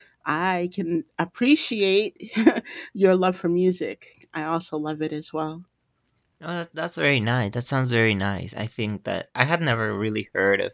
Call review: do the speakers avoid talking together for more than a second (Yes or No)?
Yes